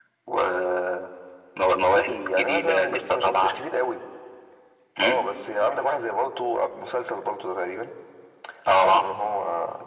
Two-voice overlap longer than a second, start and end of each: 1.9-3.5

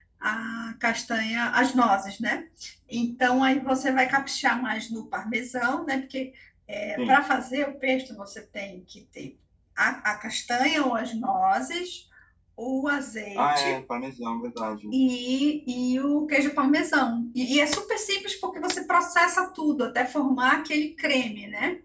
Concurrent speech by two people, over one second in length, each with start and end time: none

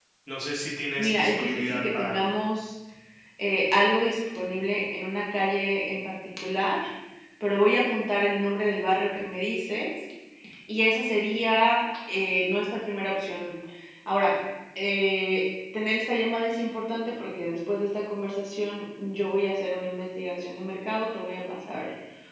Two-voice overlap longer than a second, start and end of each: 1.0-2.2

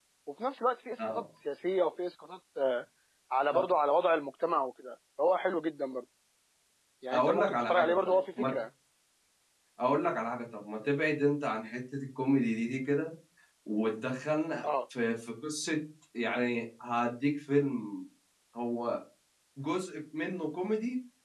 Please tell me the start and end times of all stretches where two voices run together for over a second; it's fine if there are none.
7.1-8.5

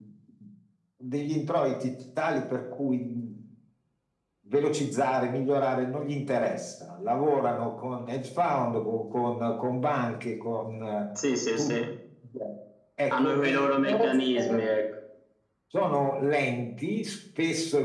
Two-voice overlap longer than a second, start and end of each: 13.1-14.6

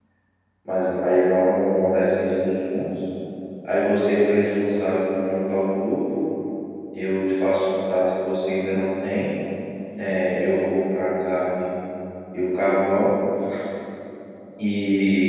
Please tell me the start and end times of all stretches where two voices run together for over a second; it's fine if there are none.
none

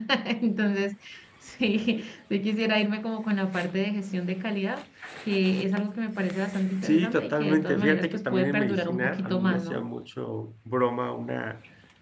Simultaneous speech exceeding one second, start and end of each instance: 6.8-9.9

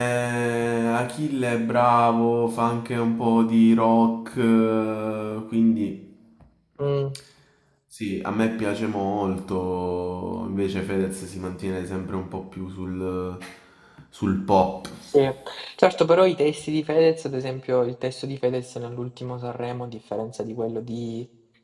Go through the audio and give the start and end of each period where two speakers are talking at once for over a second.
none

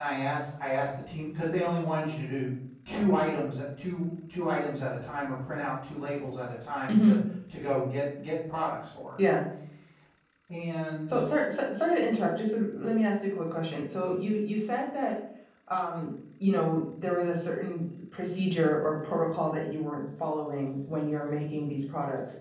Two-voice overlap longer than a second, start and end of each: none

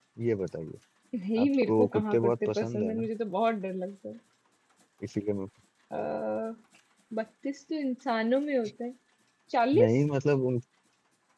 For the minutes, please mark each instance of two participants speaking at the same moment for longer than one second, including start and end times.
1.4-3.1

